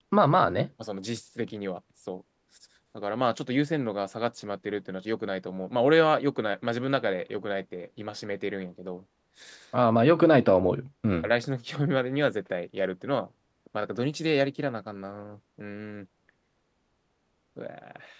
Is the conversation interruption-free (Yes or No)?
Yes